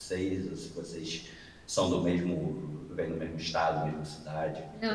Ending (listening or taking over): taking over